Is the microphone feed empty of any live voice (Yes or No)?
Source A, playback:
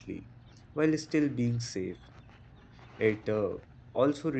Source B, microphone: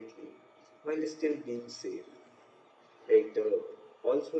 Yes